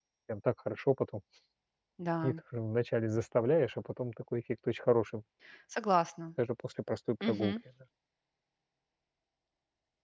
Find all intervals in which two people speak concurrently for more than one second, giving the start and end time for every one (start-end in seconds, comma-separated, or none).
none